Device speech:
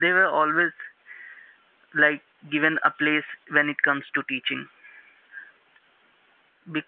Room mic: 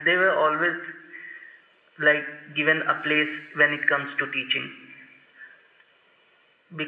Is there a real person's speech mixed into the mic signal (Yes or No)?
No